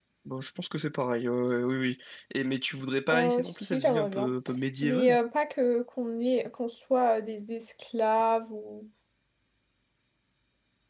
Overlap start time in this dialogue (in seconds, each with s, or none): 3.1 s